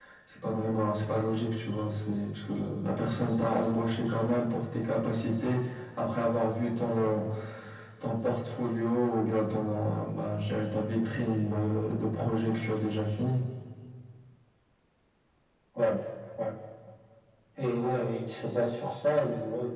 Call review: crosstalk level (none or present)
none